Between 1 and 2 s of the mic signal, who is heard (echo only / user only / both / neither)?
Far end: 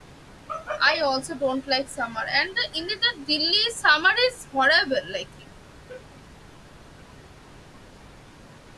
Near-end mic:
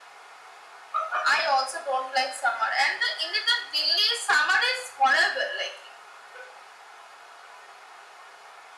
echo only